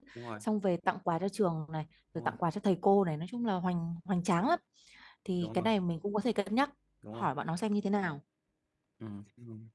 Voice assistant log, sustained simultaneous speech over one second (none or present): none